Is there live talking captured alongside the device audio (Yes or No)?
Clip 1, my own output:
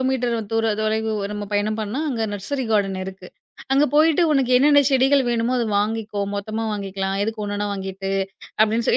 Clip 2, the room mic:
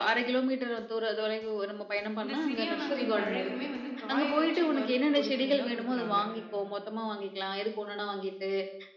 Yes